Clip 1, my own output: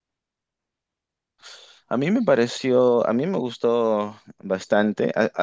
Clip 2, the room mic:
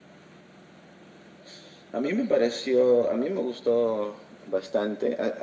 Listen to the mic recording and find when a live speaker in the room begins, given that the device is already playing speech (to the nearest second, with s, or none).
none